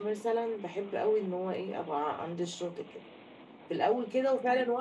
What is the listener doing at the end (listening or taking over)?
listening